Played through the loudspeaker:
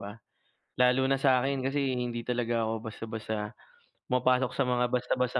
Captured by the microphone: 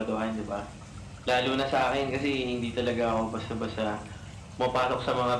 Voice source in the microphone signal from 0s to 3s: echo only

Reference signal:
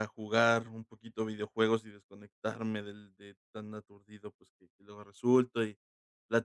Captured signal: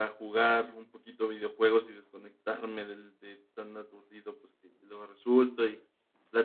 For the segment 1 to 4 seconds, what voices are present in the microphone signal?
echo only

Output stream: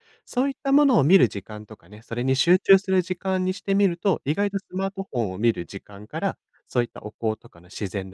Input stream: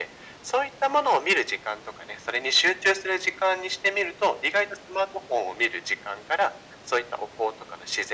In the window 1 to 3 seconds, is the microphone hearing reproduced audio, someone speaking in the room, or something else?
echo only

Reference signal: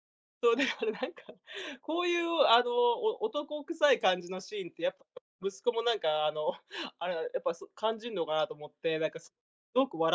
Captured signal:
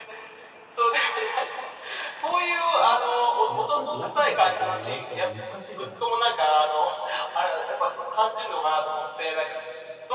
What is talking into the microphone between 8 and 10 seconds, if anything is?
echo only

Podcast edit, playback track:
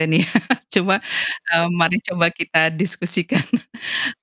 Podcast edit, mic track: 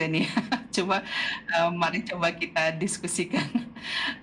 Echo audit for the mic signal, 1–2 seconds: echo only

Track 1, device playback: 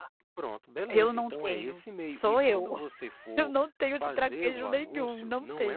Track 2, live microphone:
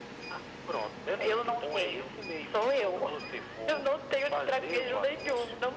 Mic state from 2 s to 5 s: echo only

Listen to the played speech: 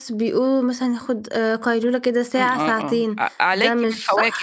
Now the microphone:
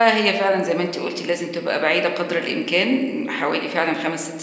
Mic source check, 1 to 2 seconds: user only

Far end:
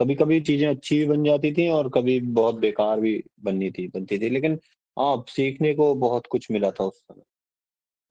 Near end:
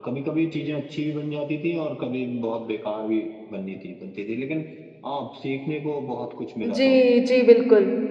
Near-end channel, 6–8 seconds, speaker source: both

